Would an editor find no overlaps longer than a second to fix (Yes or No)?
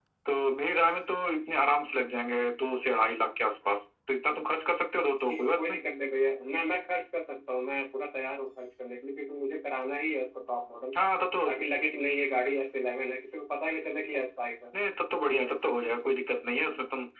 Yes